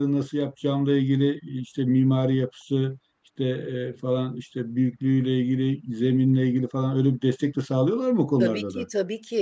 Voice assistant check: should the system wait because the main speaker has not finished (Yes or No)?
No